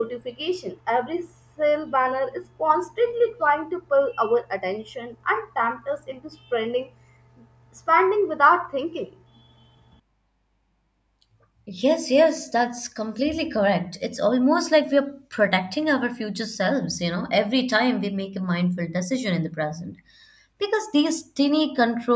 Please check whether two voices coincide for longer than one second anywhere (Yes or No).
No